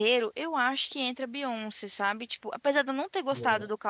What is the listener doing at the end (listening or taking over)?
listening